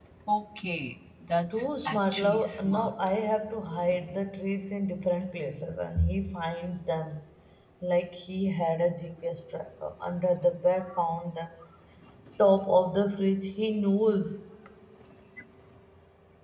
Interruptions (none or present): present